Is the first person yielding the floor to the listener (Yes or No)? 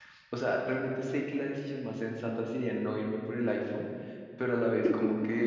No